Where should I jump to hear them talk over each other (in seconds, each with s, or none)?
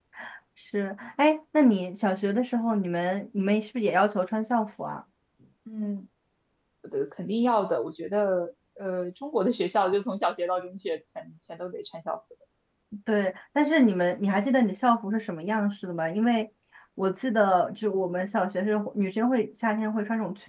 none